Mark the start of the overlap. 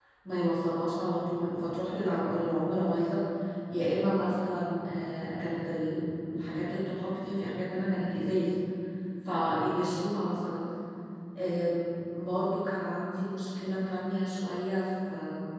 none

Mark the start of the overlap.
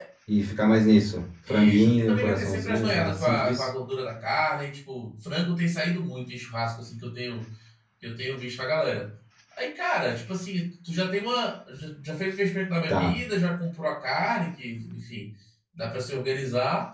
1.5 s

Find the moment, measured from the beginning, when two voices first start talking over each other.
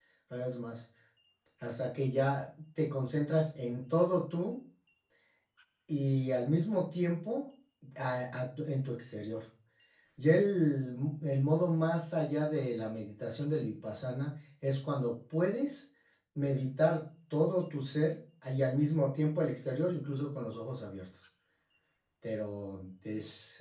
none

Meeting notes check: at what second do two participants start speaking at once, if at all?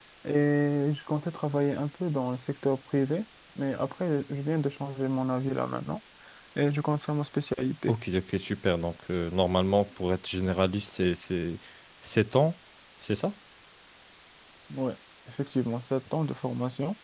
none

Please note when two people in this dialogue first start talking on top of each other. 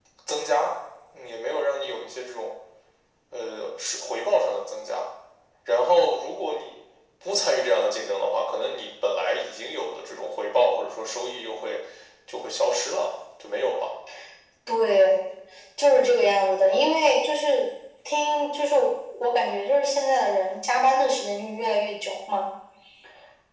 none

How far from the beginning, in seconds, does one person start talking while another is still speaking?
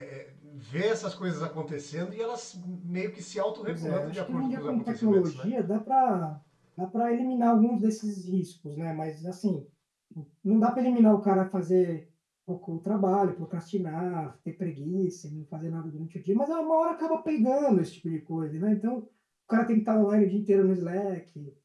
3.7 s

